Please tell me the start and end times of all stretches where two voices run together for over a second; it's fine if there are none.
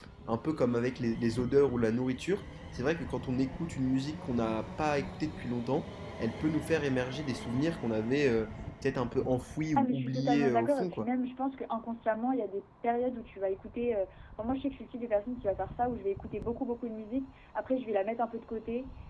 9.8-11.1

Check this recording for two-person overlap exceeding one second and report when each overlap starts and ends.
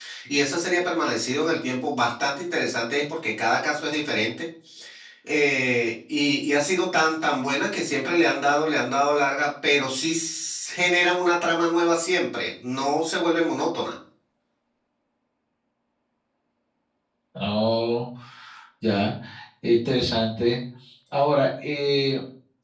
none

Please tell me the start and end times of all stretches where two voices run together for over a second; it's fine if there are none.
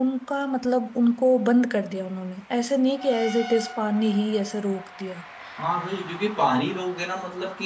none

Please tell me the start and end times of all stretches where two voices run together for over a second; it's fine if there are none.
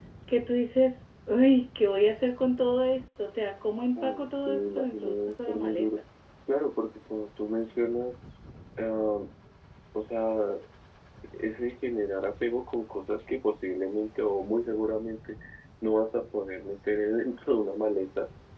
4.0-5.9

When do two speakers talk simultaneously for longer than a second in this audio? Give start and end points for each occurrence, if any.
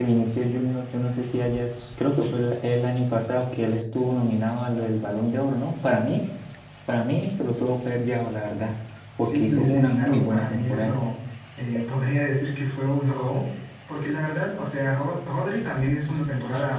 9.2-10.9

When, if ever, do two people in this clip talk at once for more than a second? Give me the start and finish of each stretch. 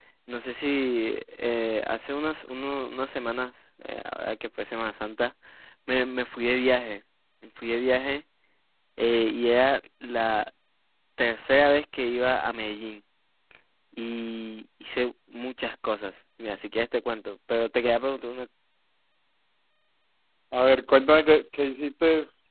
none

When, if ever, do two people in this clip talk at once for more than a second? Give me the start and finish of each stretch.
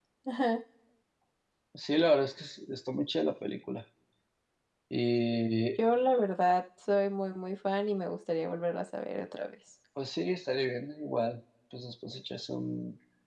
none

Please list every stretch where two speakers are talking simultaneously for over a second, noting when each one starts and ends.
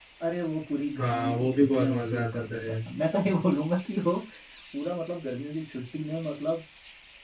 1.0-2.8

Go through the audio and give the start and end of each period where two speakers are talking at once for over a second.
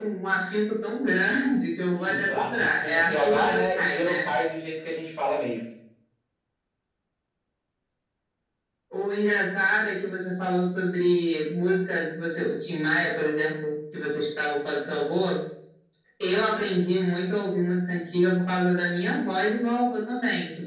1.9-4.3

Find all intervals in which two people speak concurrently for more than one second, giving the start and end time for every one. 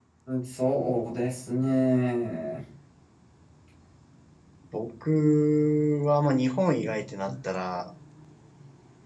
none

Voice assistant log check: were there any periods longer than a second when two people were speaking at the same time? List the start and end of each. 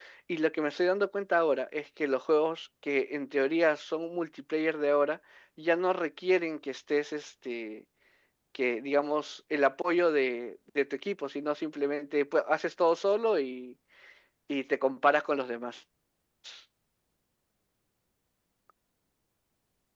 none

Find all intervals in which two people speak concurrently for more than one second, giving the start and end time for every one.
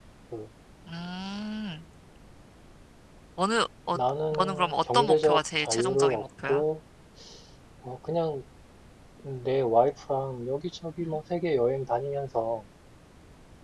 4.4-6.6

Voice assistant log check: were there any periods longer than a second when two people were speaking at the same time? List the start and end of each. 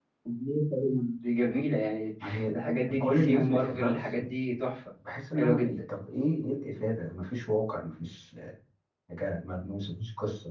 3.0-4.2

